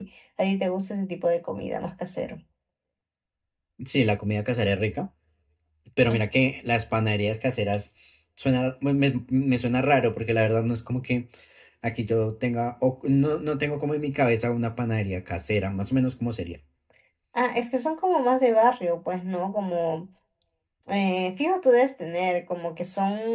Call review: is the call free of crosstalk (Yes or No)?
Yes